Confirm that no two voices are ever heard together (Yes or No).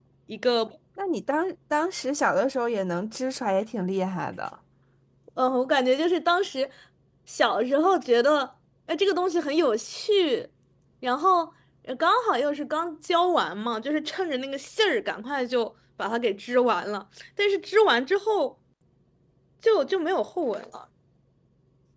Yes